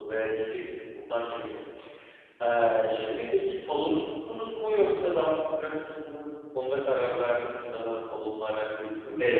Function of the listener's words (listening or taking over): taking over